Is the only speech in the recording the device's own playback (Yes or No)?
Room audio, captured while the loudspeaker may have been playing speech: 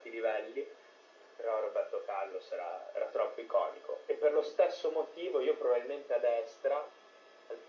Yes